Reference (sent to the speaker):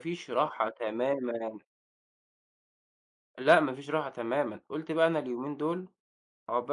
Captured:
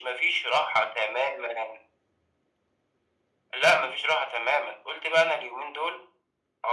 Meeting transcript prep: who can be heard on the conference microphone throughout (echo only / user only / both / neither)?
echo only